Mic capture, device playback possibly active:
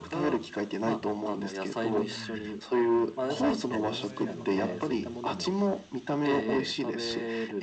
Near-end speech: present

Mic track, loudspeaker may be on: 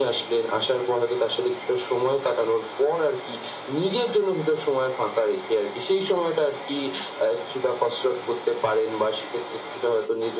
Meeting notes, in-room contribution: none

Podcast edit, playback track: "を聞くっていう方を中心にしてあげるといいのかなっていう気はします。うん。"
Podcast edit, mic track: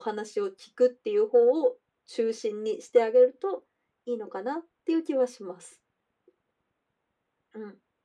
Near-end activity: none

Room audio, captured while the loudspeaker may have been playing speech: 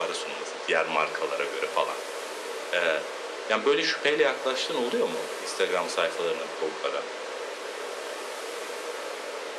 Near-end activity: none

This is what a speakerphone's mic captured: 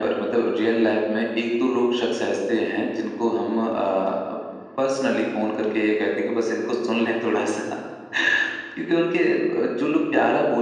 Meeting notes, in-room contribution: none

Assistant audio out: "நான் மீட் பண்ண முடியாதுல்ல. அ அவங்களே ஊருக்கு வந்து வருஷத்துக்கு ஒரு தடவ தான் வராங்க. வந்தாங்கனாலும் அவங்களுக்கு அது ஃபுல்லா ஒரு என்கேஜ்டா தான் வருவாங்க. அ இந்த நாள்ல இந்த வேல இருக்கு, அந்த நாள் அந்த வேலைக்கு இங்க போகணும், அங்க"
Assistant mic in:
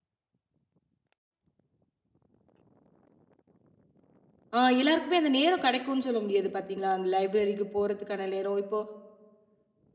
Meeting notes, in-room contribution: present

